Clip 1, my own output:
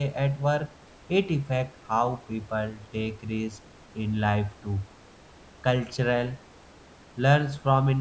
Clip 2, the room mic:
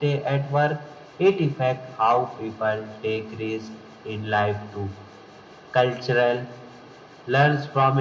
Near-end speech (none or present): none